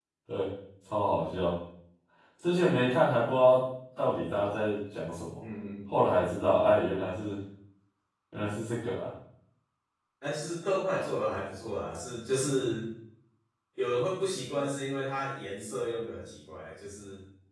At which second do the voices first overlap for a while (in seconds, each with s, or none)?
none